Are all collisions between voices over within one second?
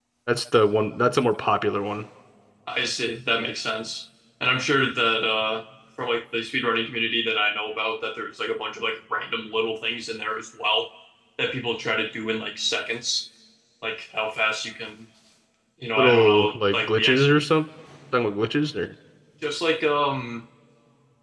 No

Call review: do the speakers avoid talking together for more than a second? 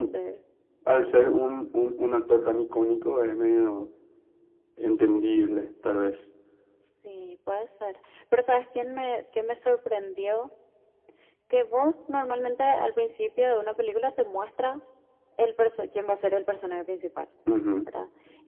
Yes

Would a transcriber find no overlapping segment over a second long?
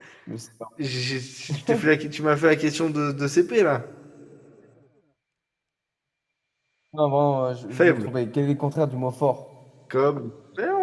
Yes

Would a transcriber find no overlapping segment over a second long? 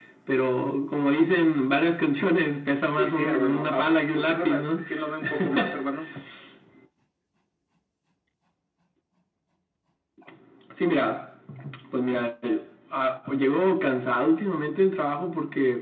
No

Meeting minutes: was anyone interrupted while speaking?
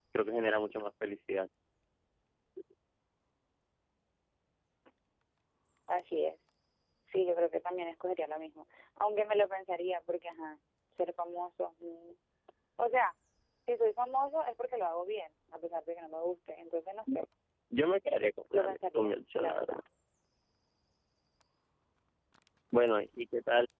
Yes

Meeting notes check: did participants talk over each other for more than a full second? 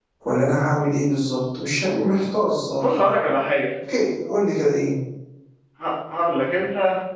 No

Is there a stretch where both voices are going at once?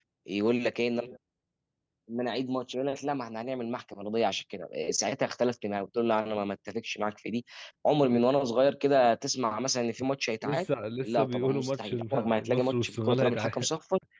Yes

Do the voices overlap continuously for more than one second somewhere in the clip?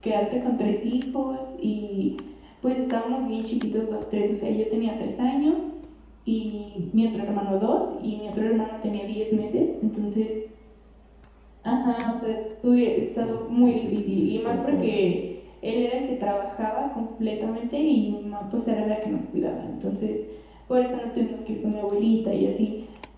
Yes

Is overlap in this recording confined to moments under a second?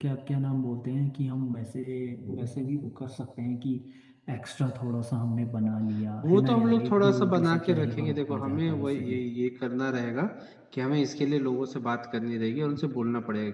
No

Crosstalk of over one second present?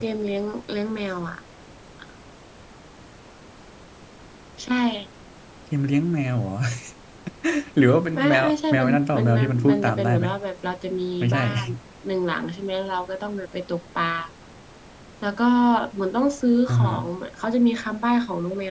Yes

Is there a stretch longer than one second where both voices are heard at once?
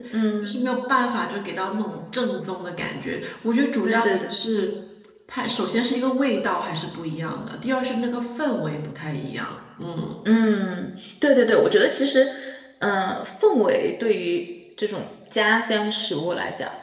No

